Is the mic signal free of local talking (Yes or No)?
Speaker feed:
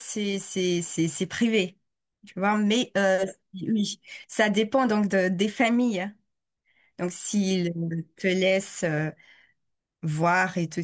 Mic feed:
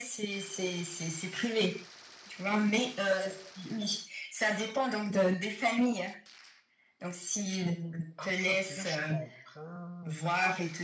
No